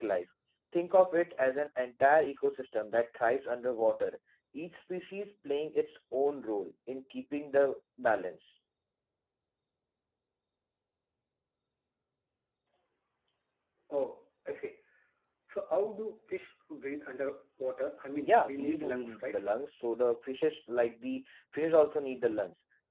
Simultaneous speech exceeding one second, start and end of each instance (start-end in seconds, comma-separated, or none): 18.2-19.4